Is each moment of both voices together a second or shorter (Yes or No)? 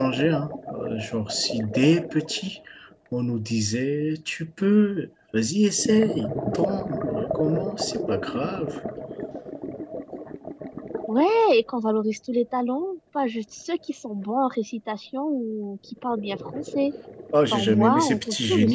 No